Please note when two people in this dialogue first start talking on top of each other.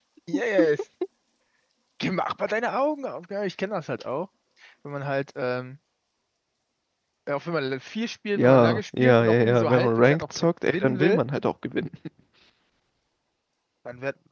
8.4 s

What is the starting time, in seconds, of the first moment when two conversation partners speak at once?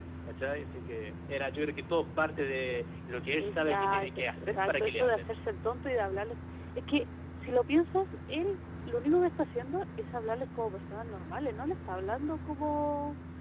3.4 s

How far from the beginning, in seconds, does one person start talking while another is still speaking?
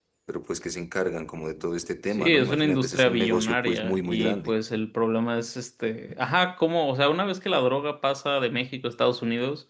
2.1 s

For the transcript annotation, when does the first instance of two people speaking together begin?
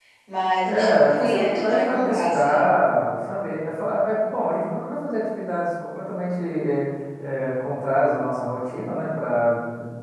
0.6 s

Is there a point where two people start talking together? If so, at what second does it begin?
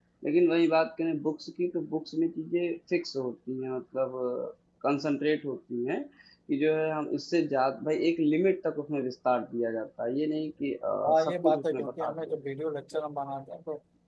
11.0 s

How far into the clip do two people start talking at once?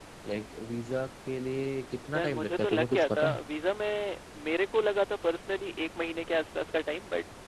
2.1 s

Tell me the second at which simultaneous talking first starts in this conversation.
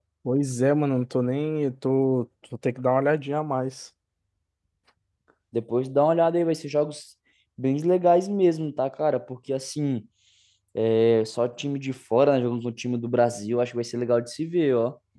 none

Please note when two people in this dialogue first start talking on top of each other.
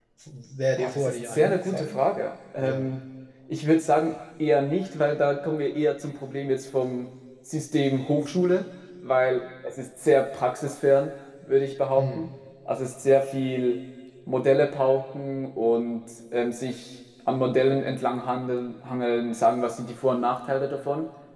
0.8 s

